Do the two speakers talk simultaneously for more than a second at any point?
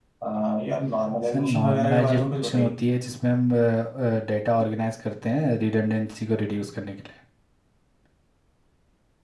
Yes, from 1.3 s

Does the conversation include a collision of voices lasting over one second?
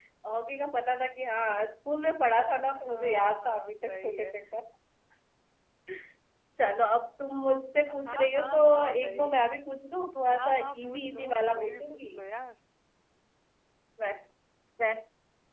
Yes, from 2.8 s

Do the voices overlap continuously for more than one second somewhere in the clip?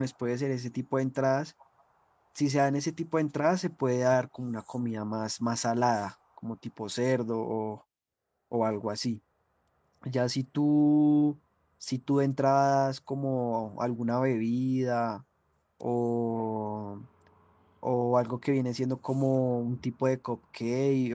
No

